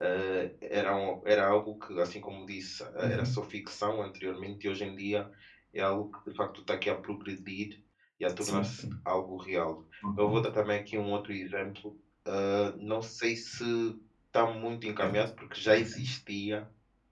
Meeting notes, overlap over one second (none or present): none